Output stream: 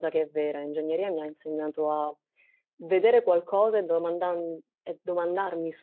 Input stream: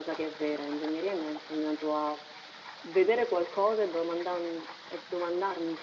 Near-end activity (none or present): none